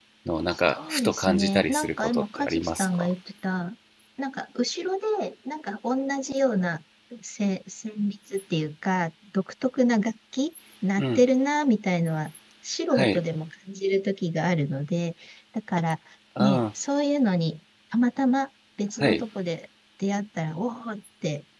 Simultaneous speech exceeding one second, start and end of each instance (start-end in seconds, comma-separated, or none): 0.7-3.1